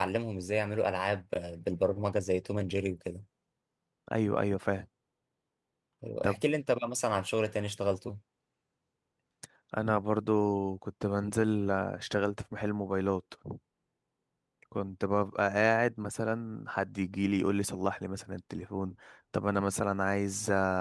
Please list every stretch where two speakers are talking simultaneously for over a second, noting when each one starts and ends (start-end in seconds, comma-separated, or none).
none